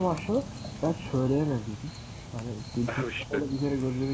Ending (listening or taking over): listening